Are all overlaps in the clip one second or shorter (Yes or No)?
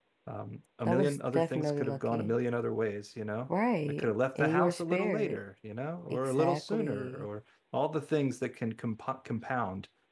No